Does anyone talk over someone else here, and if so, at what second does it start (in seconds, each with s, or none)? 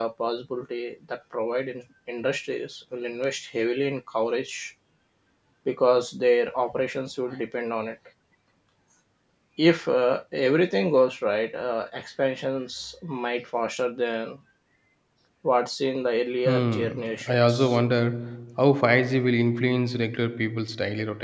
16.4 s